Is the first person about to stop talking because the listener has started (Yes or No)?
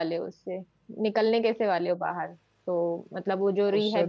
No